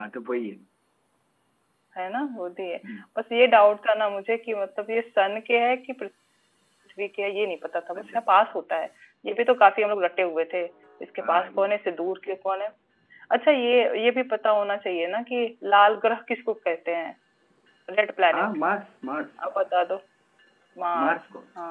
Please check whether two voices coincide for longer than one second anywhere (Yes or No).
No